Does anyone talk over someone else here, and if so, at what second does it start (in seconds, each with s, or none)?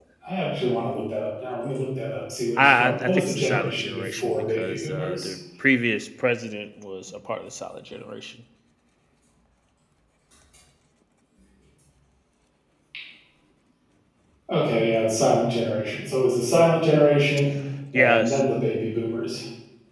2.6 s